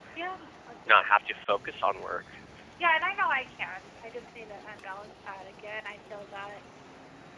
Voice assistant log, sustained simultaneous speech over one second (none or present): none